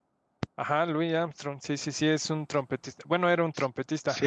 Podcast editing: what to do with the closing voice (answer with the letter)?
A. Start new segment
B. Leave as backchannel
A